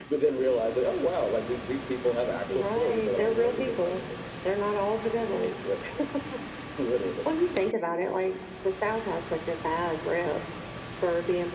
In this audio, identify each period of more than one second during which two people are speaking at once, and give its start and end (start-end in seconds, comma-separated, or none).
2.6-4.0